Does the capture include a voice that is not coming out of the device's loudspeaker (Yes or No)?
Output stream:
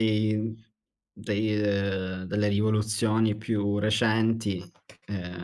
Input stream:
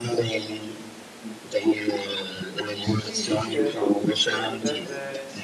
Yes